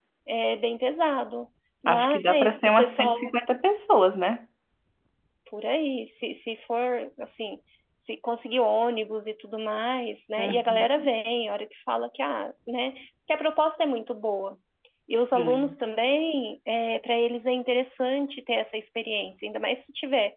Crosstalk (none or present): present